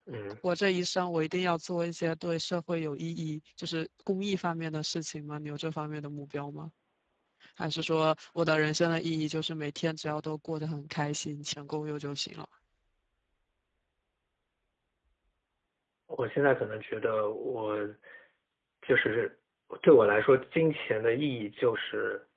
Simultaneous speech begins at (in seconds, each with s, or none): none